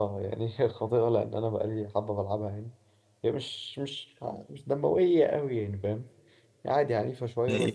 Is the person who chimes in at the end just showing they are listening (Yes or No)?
No